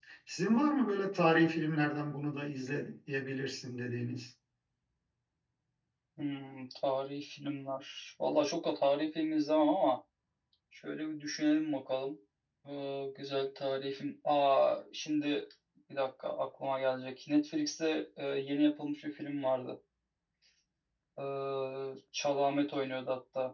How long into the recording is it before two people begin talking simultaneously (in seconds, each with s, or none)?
none